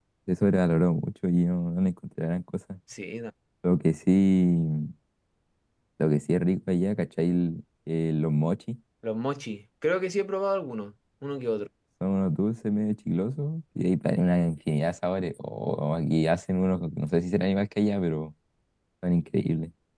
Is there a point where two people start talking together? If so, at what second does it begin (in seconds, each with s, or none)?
none